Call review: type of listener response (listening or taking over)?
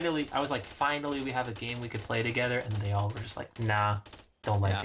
taking over